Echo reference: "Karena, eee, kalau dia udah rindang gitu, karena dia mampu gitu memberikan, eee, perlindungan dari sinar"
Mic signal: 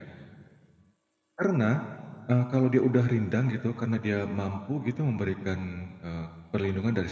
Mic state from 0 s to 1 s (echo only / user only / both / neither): neither